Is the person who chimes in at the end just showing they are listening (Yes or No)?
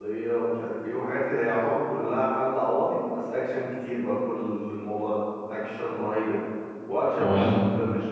Yes